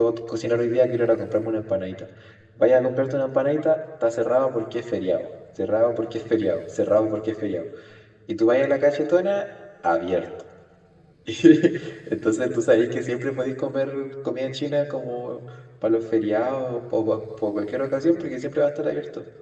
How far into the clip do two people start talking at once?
none

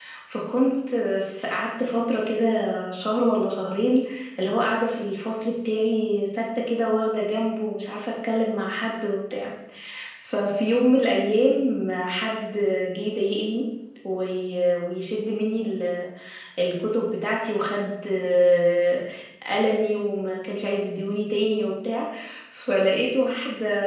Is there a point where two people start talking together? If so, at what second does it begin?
none

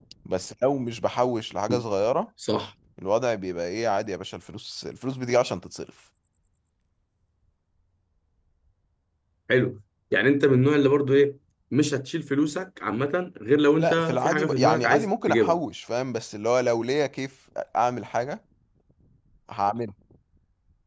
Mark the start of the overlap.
14 s

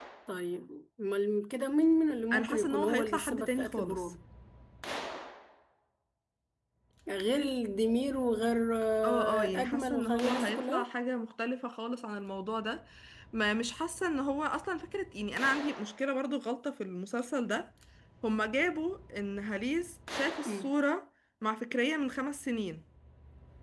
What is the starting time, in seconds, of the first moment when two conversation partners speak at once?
2 s

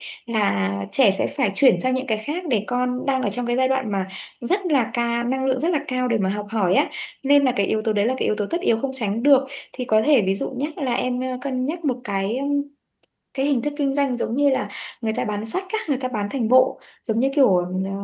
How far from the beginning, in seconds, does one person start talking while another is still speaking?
none

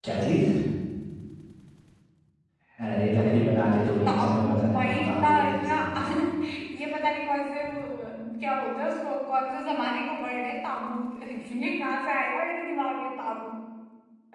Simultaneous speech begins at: 4 s

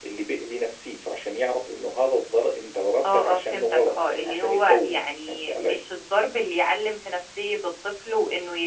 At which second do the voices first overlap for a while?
3 s

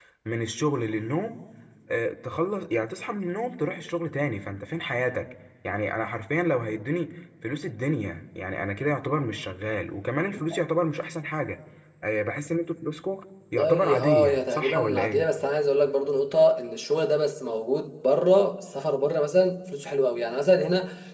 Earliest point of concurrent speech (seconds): 14 s

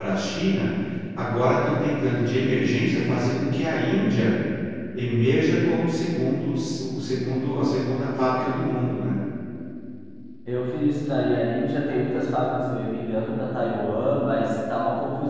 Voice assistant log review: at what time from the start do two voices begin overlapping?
none

